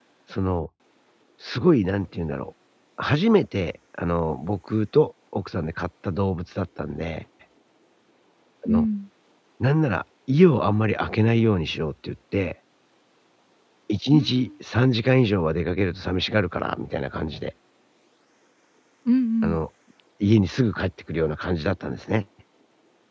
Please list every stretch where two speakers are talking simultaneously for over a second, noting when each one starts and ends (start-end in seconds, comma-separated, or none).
none